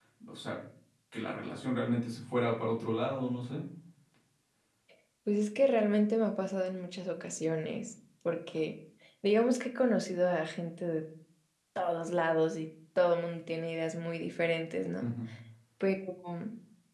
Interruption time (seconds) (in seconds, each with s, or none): none